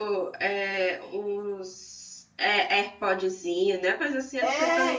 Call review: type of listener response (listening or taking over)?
taking over